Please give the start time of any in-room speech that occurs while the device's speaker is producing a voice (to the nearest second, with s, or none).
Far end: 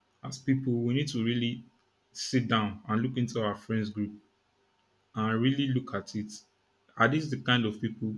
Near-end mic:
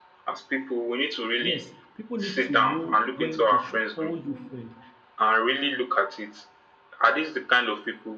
1 s